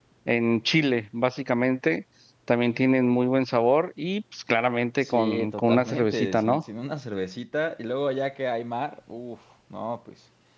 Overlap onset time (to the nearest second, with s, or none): 5 s